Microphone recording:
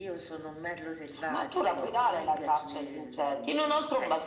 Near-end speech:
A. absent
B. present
A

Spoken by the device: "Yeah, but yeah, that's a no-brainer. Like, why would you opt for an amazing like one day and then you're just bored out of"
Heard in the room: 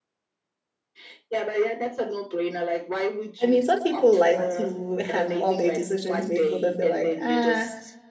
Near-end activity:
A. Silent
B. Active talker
B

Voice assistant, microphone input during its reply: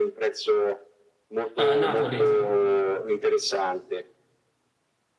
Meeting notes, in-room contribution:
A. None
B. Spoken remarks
B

